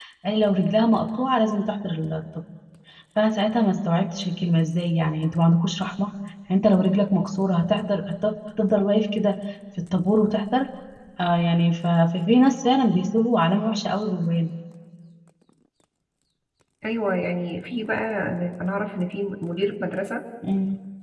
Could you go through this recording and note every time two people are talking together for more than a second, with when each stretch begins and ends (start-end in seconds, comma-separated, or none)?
none